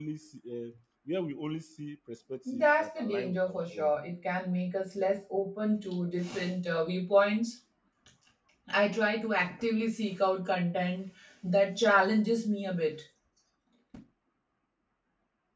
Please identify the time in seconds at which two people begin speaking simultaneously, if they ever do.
2 s

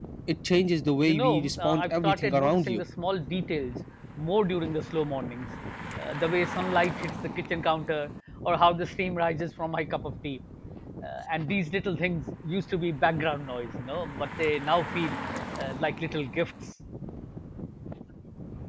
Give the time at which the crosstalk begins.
1 s

